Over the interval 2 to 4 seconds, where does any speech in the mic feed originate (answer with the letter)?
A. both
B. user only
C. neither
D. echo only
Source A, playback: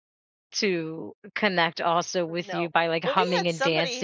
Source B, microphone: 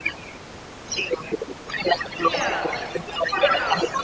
A